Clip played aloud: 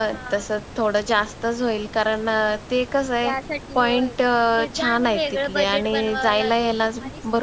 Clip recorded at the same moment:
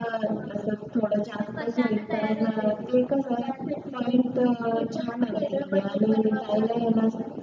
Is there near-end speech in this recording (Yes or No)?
Yes